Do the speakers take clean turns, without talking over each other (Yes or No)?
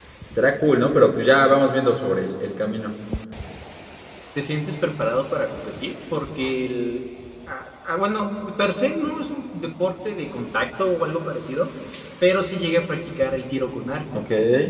Yes